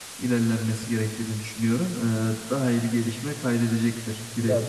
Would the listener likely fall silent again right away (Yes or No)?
No